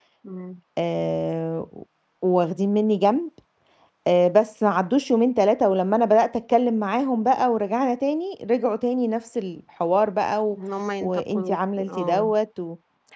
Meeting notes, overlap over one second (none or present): present